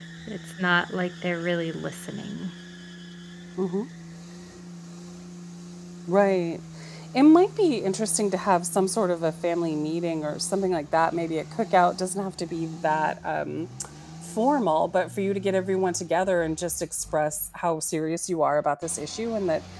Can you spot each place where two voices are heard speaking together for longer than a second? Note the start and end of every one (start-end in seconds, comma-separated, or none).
none